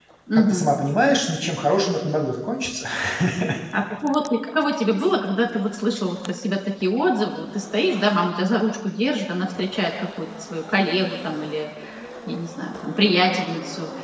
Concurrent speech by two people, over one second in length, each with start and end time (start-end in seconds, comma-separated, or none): none